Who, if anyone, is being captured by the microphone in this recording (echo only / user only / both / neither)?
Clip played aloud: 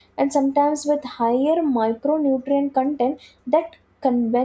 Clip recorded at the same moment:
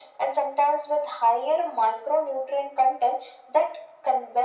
echo only